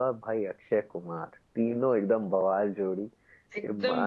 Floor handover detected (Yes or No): Yes